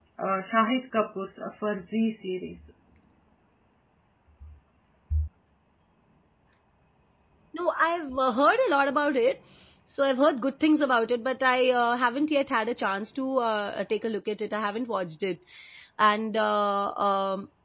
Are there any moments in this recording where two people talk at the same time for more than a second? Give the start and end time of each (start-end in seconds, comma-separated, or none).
none